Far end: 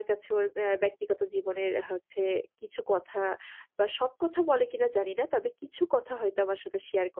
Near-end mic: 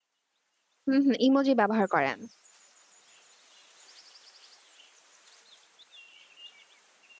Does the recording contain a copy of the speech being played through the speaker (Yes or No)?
No